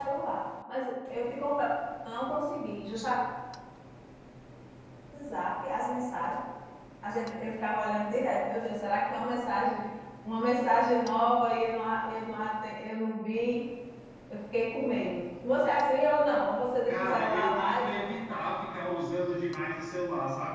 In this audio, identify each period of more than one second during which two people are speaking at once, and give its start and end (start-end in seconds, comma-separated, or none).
16.9-18.1